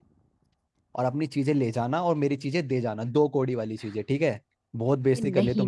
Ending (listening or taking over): taking over